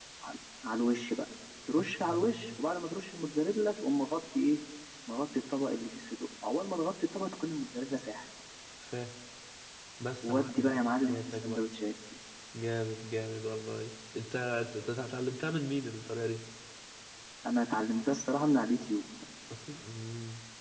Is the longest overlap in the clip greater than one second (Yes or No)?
Yes